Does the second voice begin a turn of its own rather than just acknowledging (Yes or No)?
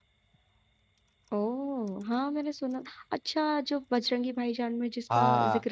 Yes